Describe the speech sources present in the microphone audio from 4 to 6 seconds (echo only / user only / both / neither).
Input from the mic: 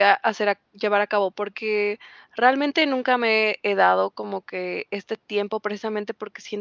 user only